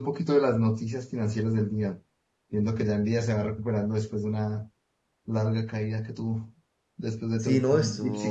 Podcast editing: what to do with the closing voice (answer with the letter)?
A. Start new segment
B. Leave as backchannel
A